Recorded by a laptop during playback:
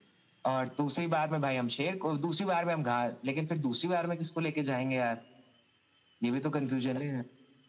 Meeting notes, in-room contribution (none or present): none